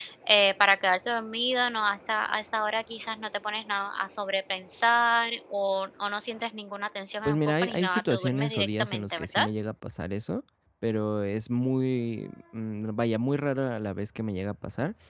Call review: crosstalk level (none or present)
present